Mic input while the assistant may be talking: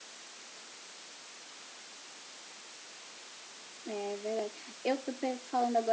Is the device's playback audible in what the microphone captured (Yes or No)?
No